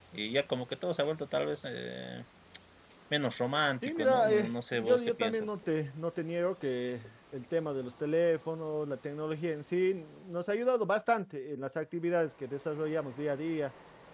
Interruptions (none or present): present